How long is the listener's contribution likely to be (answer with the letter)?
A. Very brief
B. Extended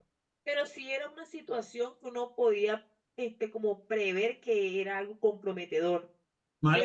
B